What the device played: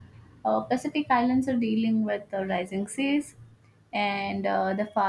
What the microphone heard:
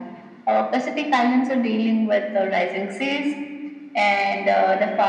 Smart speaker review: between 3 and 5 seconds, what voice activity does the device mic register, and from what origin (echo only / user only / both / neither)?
echo only